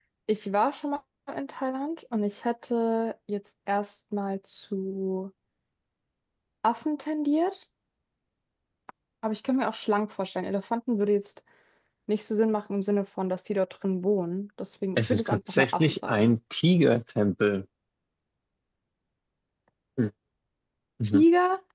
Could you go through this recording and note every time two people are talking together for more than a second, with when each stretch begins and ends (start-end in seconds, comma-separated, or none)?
15.0-16.3